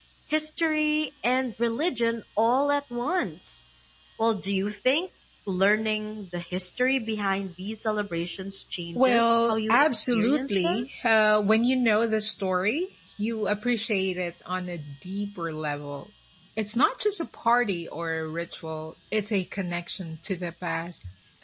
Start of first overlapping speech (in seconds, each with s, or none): 8.9 s